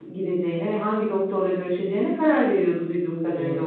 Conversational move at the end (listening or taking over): taking over